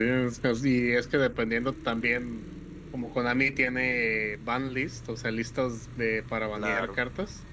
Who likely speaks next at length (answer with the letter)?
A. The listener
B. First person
B